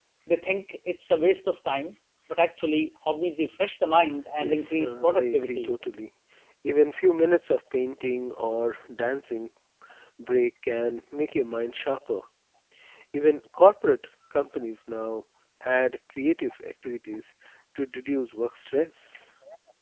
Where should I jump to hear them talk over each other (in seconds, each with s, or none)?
4.4 s